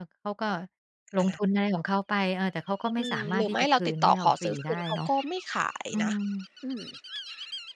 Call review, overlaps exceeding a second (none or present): present